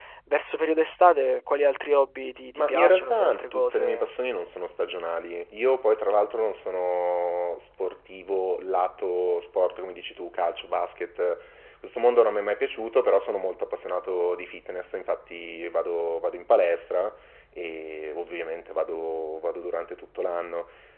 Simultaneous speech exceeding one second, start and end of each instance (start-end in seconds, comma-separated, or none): 2.5-4.1